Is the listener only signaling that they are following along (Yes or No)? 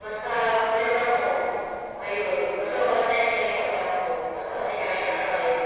No